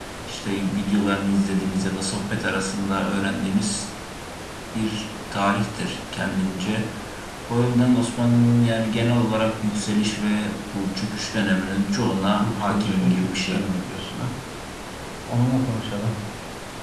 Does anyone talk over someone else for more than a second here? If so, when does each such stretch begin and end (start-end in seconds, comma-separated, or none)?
12.4-13.6